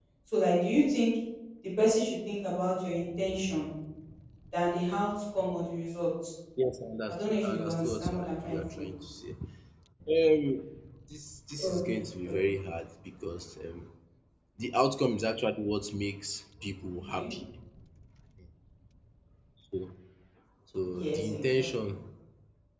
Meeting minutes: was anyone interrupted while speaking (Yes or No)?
Yes